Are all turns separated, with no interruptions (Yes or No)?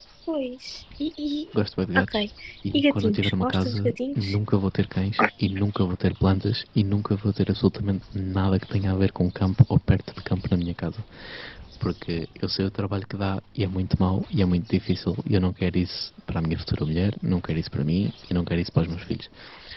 No